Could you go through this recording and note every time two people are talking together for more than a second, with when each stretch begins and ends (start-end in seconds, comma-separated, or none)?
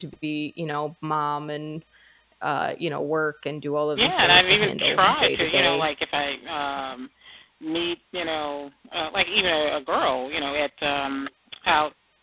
4.0-5.8